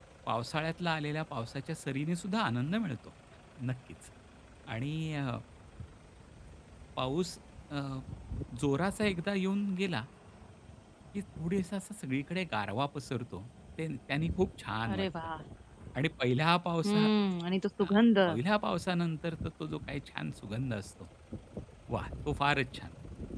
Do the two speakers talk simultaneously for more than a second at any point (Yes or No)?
No